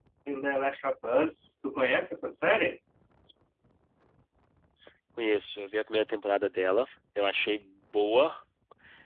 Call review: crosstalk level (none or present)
none